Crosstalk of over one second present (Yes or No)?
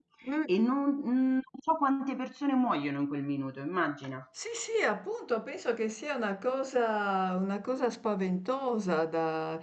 No